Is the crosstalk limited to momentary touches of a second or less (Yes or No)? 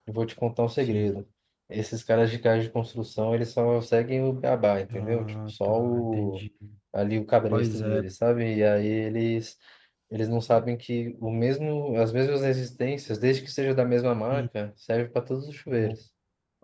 No